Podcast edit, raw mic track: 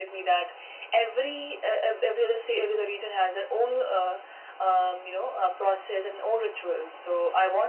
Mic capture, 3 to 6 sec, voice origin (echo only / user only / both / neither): echo only